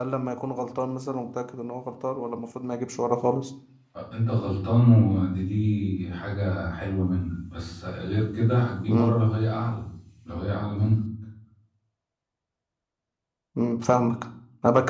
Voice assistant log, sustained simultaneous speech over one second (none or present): none